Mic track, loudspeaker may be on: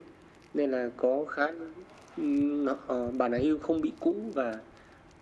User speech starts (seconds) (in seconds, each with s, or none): none